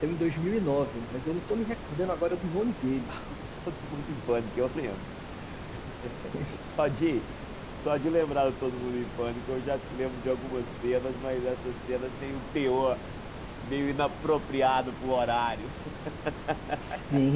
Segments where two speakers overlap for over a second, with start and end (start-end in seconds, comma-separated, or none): none